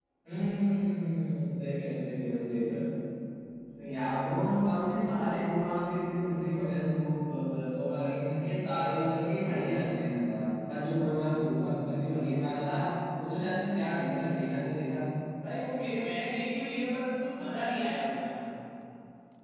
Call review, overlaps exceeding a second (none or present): none